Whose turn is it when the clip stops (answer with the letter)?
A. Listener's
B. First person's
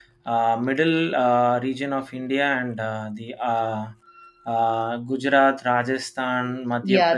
A